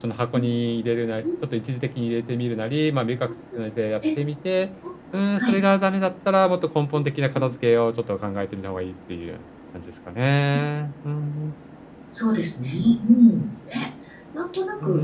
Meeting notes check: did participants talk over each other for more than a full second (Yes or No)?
No